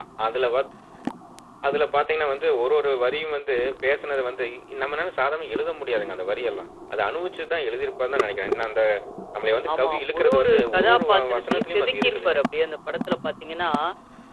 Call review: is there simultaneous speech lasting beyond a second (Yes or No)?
Yes